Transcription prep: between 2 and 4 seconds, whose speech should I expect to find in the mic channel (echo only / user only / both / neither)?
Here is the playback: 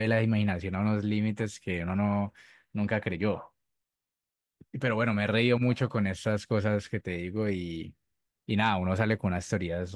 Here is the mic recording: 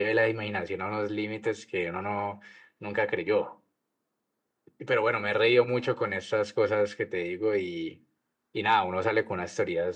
echo only